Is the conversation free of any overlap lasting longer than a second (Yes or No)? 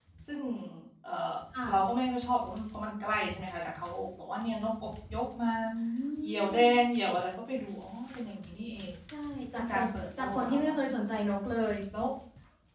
No